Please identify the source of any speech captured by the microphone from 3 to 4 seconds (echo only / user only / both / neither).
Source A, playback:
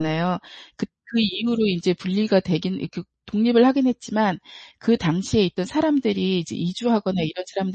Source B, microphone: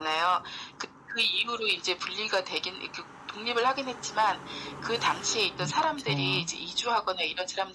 echo only